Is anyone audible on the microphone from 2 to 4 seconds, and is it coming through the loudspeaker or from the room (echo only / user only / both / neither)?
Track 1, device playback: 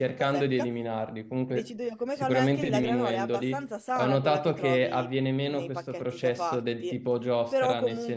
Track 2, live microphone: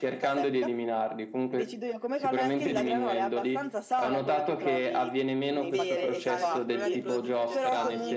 echo only